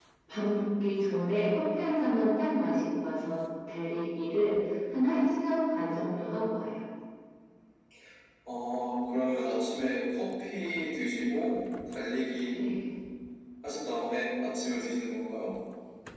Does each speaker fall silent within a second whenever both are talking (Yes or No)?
Yes